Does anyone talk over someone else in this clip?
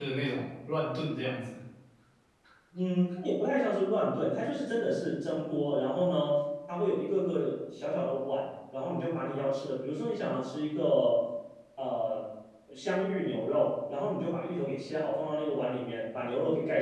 No

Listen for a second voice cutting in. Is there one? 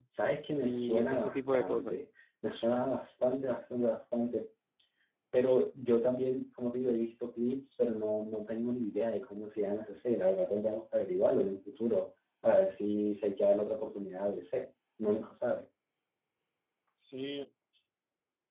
Yes, from 0.6 s

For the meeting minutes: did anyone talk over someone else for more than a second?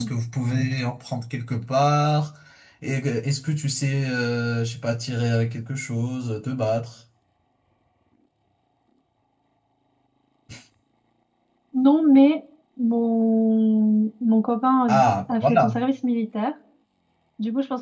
No

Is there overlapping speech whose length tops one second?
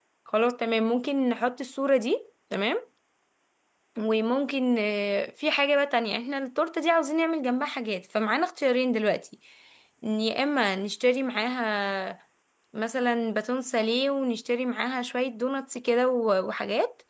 No

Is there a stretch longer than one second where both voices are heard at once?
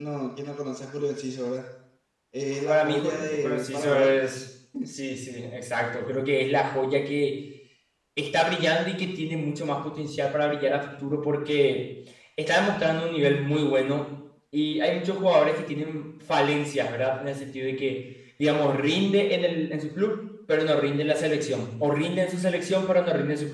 Yes, from 2.7 s

